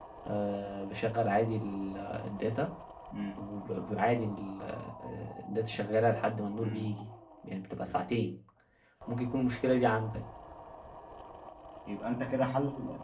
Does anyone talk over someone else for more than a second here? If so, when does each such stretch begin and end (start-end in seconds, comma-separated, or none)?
none